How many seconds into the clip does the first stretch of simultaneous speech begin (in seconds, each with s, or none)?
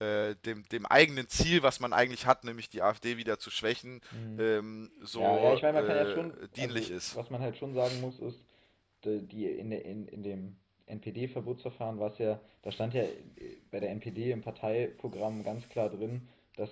5.2 s